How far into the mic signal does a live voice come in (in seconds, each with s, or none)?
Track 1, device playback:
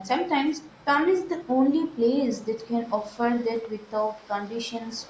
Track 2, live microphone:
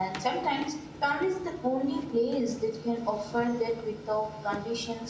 none